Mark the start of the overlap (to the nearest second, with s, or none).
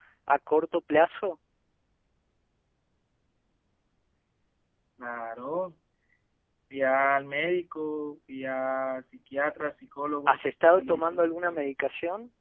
10 s